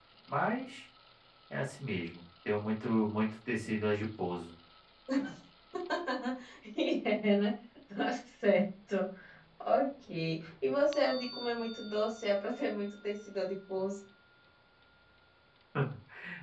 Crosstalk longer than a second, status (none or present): none